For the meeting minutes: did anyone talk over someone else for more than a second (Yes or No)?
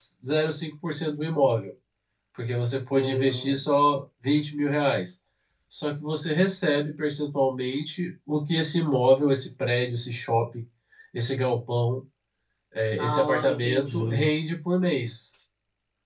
Yes